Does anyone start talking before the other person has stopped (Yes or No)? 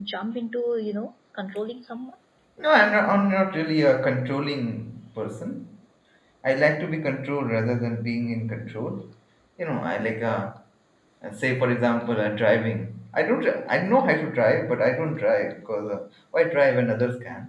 No